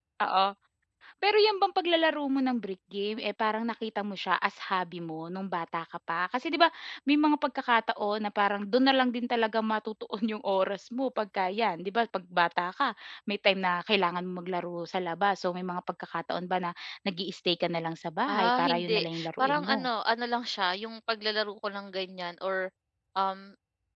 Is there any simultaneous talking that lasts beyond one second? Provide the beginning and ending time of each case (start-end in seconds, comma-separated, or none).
18.3-19.8